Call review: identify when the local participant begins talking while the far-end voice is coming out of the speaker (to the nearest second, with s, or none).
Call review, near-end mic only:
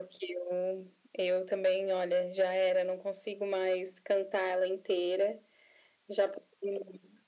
none